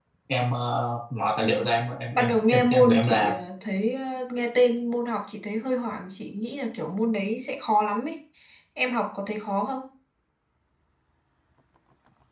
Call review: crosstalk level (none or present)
present